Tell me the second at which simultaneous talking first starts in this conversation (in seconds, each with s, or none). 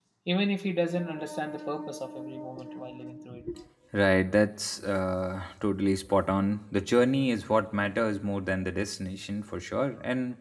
none